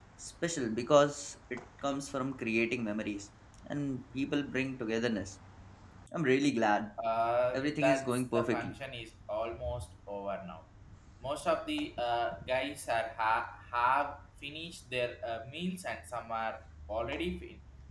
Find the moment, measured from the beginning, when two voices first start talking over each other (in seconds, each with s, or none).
7.5 s